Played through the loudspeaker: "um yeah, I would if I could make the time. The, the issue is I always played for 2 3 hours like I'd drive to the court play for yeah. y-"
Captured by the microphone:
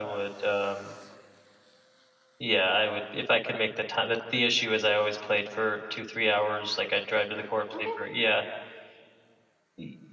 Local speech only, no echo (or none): Okay.